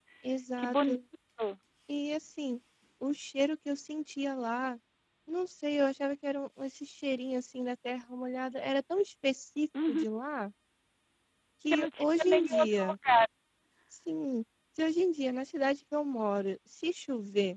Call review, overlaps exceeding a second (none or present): present